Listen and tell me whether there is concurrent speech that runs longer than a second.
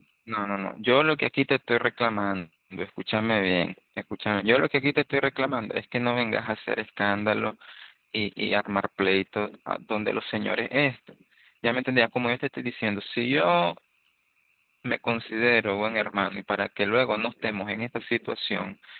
No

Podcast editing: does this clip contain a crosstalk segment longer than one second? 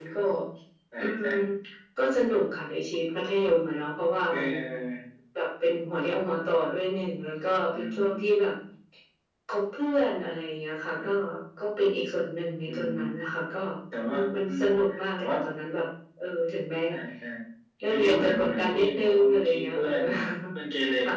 Yes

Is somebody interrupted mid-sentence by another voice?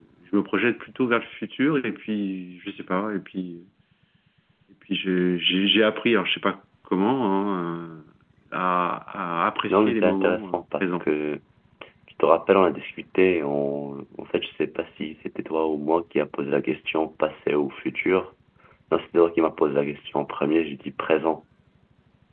Yes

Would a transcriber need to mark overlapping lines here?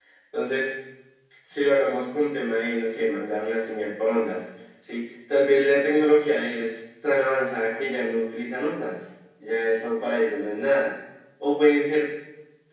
No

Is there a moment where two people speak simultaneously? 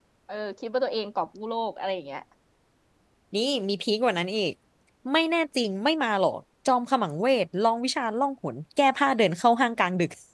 No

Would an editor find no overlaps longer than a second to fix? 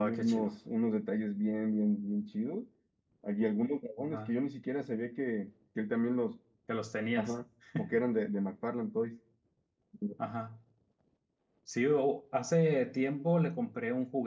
Yes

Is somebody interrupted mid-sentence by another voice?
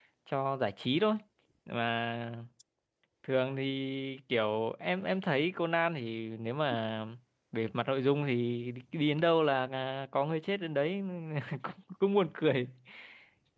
No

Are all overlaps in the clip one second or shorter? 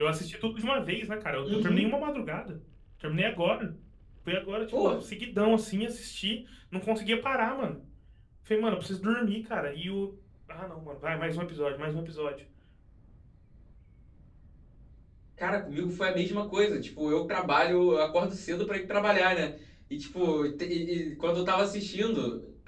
Yes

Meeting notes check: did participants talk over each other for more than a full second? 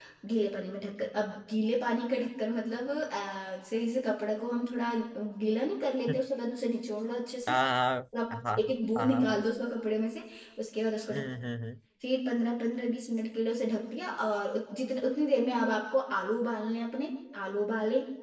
No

